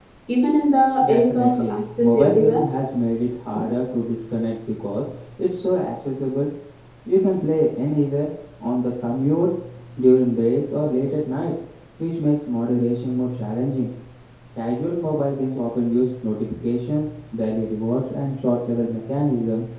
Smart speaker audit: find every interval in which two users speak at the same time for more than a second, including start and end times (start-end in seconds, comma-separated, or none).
1.0-2.6